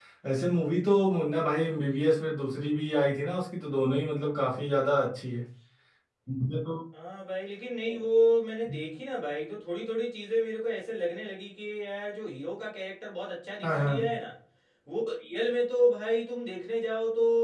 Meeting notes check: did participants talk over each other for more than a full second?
No

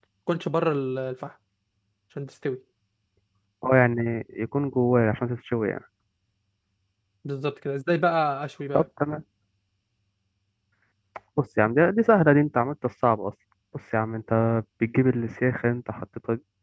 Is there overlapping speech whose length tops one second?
No

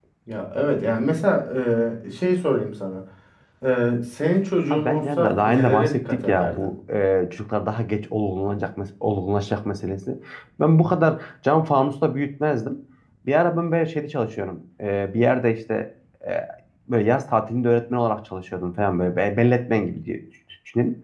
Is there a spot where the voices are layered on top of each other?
Yes, from 4.7 s

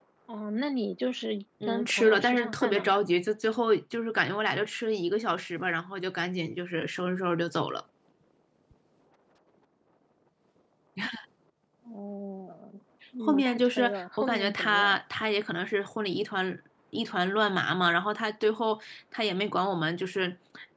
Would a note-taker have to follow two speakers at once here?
Yes, from 1.7 s

